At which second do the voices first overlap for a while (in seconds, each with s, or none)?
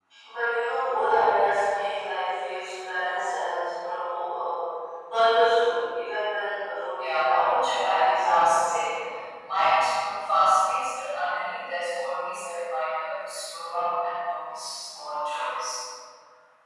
6.9 s